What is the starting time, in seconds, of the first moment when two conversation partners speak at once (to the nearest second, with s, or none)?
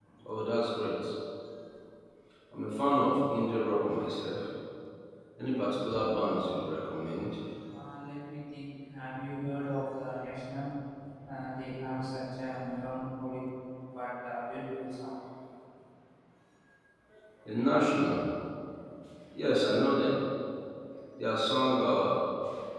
none